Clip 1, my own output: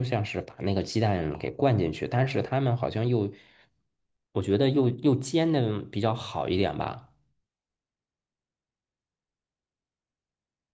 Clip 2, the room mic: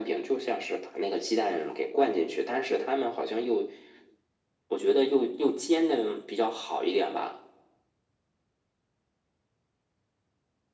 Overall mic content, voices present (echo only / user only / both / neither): echo only